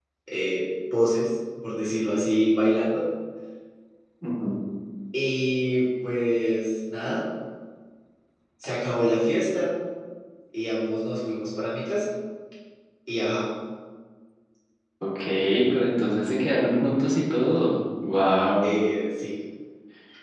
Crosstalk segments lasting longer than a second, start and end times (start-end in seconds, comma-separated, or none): none